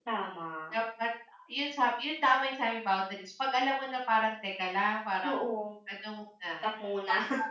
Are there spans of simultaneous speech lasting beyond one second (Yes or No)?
No